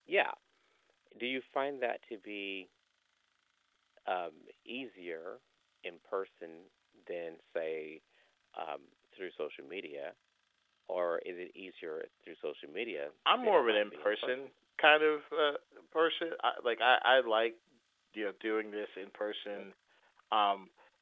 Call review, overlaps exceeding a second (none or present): present